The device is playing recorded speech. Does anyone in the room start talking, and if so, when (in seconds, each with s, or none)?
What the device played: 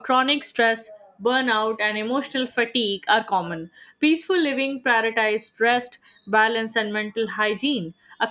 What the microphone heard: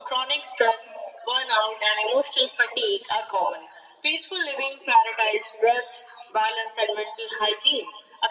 none